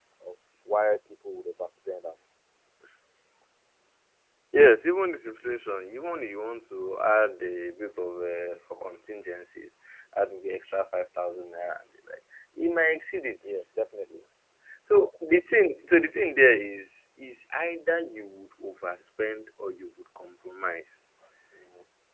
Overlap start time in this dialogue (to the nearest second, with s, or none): none